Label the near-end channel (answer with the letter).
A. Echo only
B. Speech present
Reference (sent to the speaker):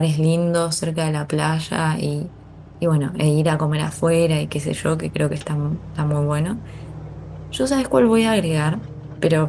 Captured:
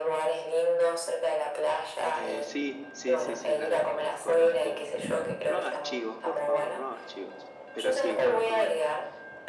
B